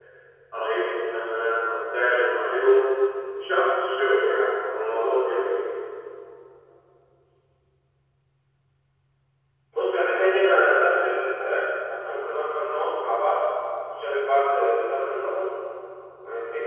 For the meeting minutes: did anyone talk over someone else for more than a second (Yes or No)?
No